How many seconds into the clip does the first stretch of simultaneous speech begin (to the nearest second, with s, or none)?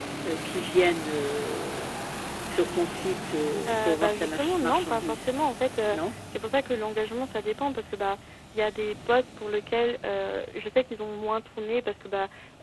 4 s